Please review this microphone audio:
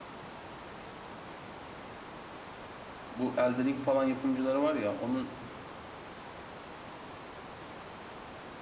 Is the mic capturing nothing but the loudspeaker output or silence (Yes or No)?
No